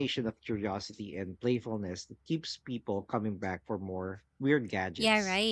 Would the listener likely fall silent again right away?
No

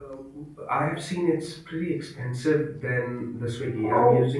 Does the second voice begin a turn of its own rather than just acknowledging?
No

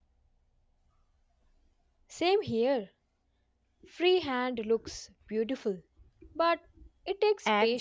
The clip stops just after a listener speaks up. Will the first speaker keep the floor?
No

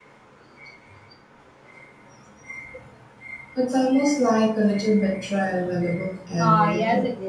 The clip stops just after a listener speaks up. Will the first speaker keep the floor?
No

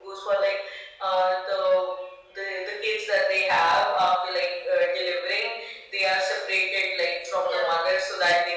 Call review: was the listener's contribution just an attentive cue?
Yes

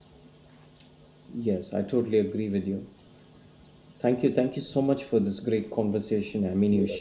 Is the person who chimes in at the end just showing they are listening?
No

